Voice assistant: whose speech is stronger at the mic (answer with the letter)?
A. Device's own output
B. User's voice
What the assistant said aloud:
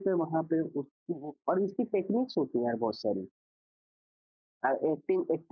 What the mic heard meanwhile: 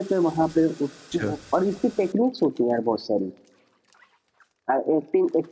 A